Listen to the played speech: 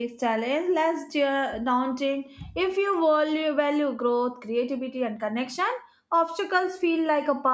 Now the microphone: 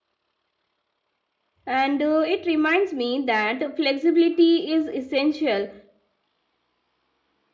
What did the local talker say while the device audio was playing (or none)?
And uh, it reminds me that flexibility is essential.